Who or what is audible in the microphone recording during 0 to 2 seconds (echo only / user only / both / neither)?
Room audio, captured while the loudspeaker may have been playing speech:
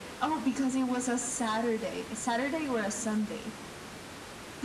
echo only